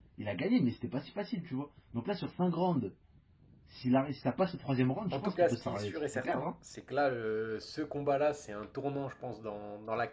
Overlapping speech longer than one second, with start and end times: 5.1-6.5

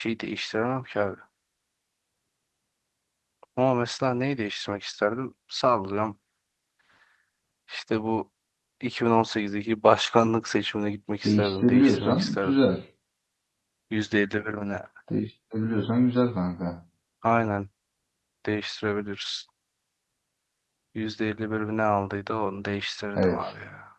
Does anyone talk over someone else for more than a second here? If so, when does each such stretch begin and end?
11.2-12.6

